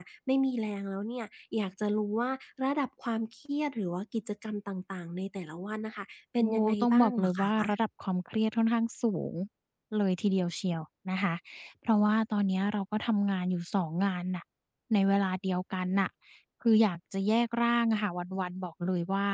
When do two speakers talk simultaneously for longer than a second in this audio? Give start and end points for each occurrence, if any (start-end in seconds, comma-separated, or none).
6.4-7.8